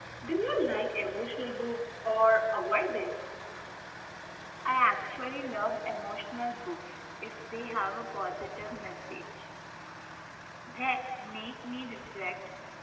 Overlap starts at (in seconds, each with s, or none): none